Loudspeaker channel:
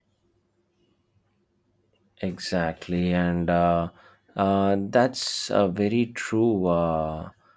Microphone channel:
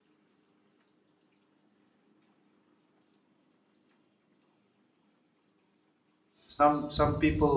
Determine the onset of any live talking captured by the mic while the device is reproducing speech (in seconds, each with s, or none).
6.5 s